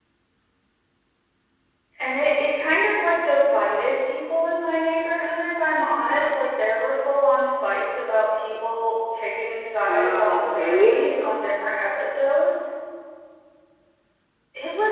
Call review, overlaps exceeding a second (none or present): present